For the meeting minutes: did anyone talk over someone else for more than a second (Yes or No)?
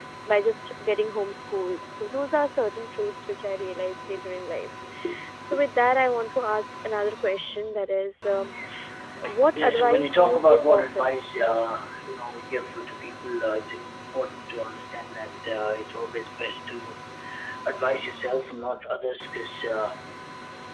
Yes